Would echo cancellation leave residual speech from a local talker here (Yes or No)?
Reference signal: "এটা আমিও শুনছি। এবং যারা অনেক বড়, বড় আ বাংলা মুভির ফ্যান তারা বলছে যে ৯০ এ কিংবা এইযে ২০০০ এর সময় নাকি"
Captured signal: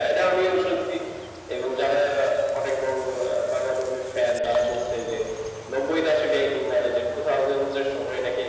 No